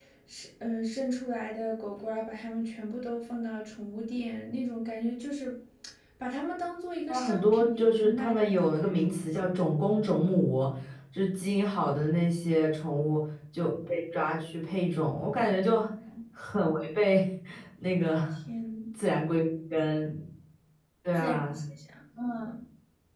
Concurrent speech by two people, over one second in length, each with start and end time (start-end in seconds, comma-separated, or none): 7.1-8.9